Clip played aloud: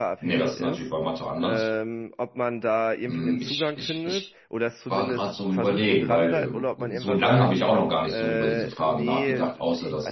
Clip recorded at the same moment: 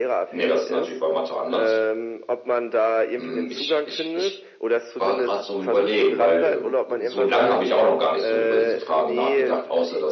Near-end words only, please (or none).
none